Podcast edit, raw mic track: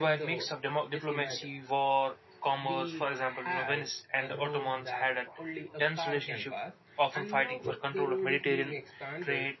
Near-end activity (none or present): present